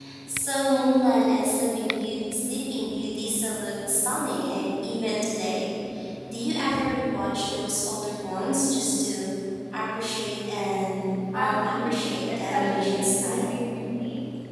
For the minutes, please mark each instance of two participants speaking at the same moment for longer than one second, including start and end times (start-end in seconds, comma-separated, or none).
11.3-13.5